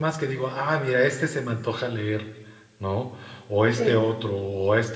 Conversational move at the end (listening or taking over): listening